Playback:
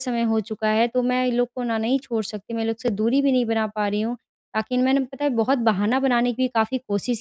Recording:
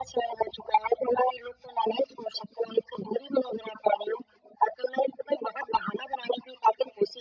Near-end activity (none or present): none